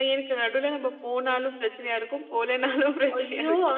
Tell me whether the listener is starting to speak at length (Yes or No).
Yes